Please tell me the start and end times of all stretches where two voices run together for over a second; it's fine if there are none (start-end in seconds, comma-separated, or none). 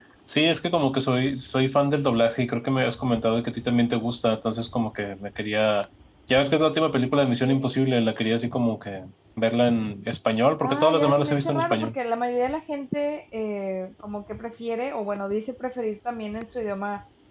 10.6-11.9